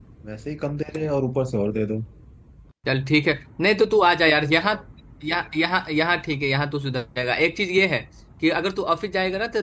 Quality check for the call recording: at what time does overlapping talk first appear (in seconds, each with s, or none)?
none